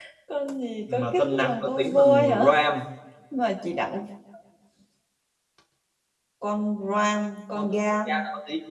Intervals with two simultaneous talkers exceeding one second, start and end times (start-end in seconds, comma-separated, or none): 0.9-2.6